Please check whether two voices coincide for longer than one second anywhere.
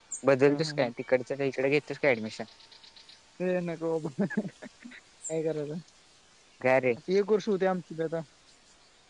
No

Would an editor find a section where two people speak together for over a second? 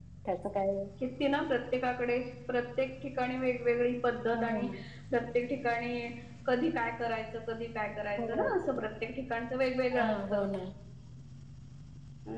No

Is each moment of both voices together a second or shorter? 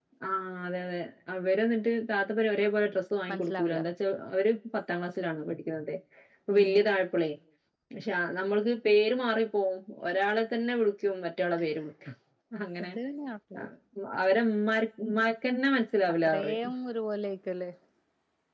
Yes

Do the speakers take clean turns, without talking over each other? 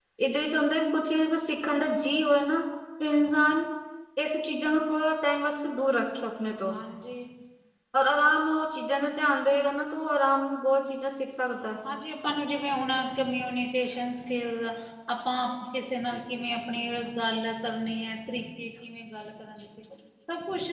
Yes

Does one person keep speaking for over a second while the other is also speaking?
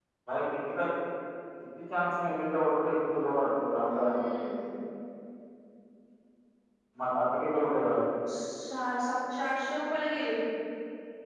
No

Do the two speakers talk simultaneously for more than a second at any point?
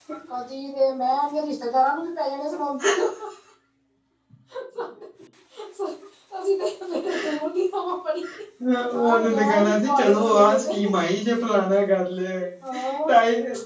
Yes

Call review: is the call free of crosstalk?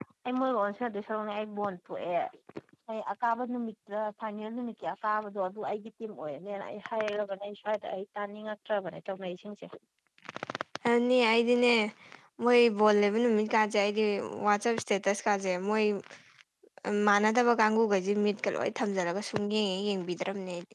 Yes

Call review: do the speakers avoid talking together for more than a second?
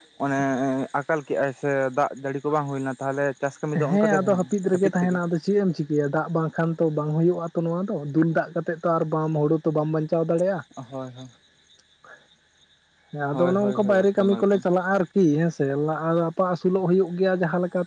No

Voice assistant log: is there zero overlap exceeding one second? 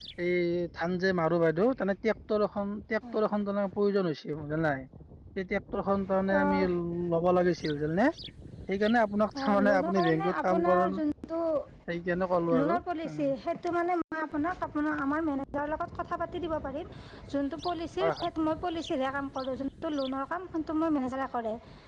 No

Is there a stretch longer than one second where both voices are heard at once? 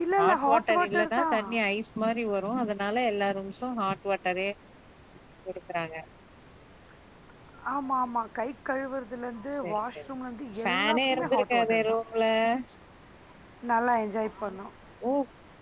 Yes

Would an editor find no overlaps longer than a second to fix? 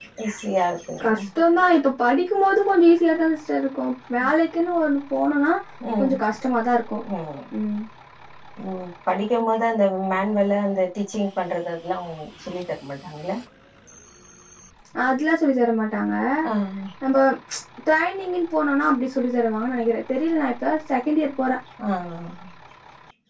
Yes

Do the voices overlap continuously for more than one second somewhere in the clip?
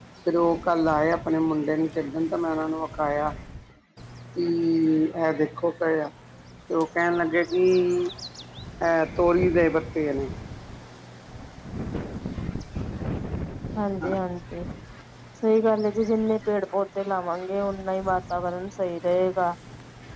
No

